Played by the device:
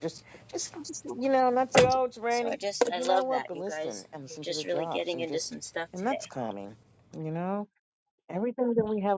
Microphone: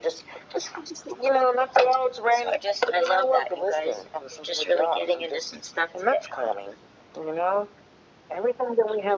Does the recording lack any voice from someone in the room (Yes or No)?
Yes